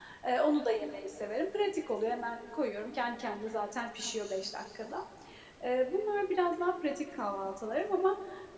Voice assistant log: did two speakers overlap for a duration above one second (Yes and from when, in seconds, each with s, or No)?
No